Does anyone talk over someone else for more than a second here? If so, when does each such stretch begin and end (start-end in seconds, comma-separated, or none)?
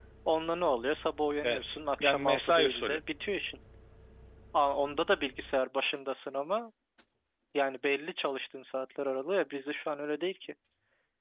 1.4-3.0